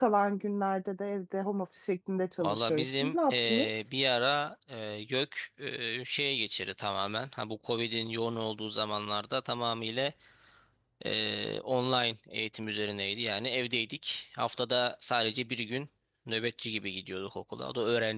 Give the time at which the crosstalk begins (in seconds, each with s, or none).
2.4 s